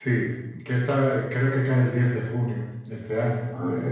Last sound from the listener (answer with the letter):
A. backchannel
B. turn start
A